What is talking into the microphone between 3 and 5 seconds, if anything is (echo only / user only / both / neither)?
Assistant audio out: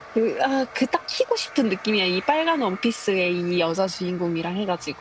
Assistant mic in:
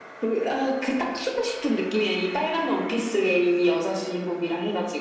echo only